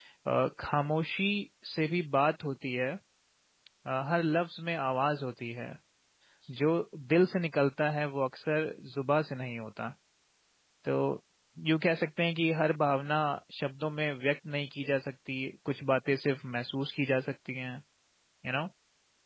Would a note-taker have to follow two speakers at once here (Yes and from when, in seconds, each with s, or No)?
No